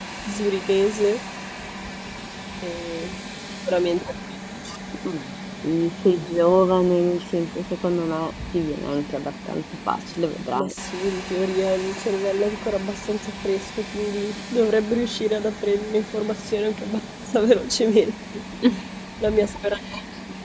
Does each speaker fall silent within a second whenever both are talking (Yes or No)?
Yes